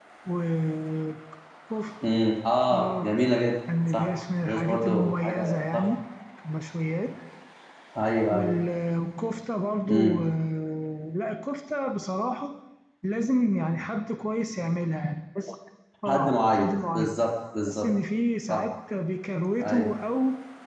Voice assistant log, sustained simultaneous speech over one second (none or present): present